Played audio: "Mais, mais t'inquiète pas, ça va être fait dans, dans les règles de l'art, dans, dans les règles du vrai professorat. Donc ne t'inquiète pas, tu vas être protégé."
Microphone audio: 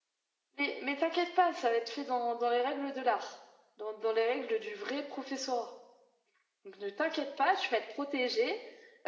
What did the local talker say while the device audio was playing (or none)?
none